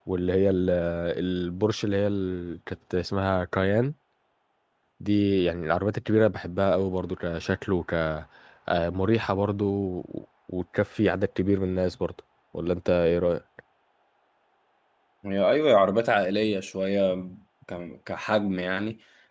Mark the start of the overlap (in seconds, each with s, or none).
none